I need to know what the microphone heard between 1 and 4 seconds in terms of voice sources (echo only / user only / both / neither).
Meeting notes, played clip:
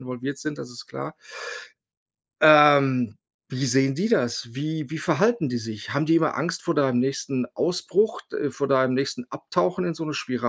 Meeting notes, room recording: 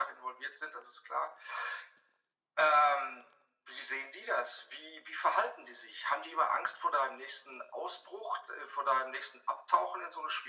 echo only